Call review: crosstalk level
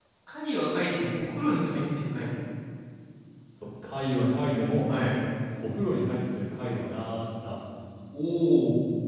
none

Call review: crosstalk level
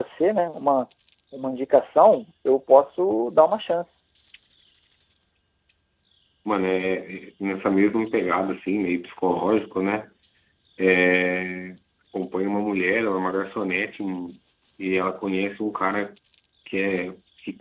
none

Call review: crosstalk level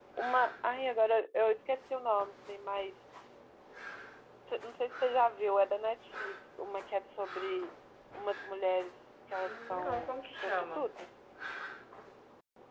present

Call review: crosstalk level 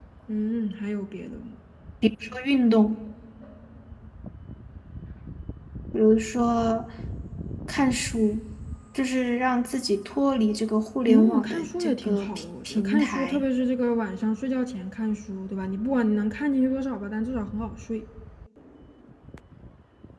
present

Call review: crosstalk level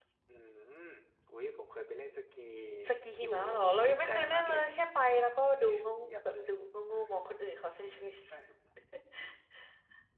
present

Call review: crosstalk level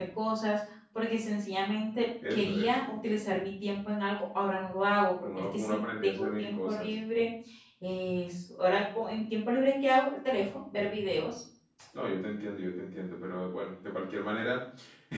present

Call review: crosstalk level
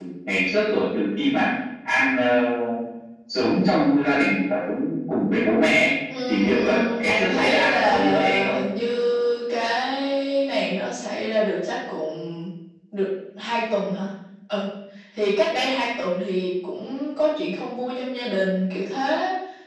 present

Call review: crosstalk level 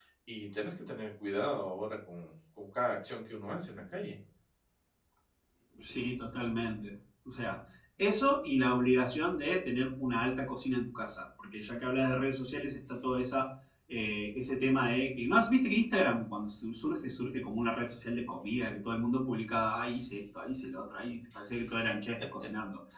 none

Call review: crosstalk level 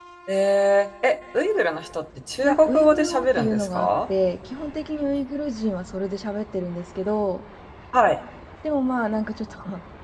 present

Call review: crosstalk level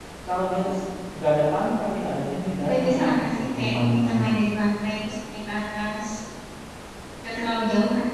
present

